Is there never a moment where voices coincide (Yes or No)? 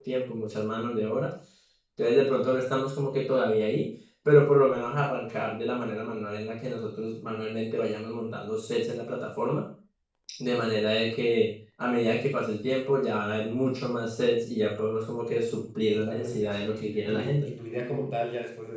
No